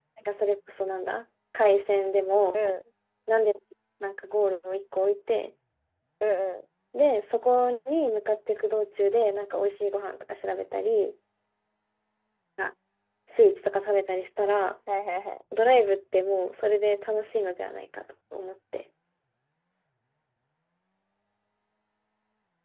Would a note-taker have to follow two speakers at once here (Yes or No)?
No